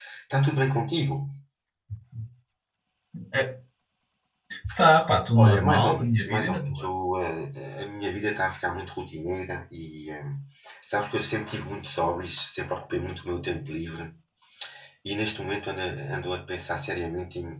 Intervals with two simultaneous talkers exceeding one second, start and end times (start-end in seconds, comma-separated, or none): 5.4-6.8